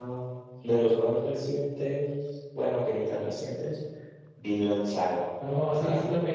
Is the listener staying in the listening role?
No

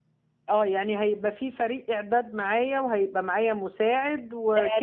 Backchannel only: No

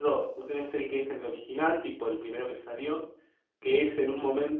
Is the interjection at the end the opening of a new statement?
No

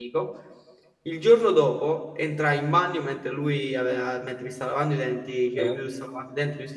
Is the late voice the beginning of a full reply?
No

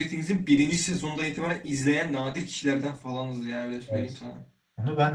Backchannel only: No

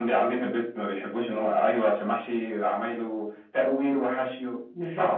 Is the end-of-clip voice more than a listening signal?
Yes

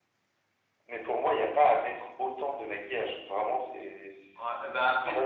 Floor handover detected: Yes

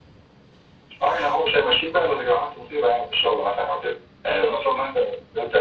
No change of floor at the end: Yes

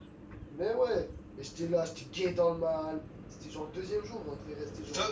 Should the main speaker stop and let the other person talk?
Yes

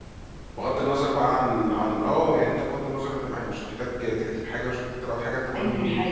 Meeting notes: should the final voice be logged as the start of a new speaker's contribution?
Yes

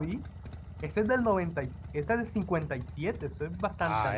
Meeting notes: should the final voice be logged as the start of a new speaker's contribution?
Yes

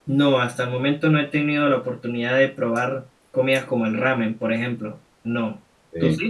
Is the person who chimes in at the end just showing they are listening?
No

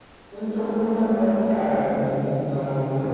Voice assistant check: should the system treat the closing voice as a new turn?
Yes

